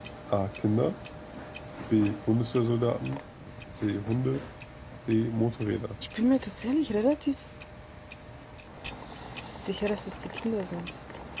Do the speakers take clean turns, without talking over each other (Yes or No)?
Yes